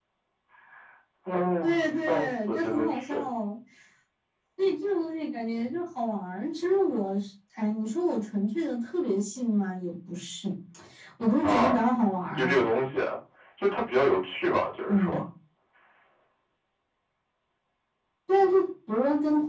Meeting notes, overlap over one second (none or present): present